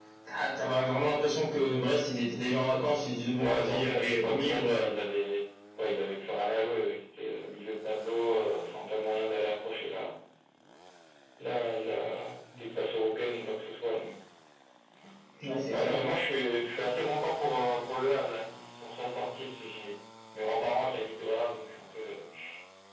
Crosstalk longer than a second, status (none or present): present